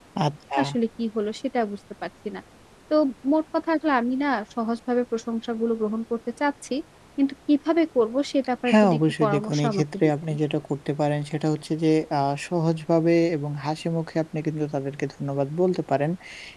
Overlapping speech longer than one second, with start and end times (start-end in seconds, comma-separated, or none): 8.7-10.1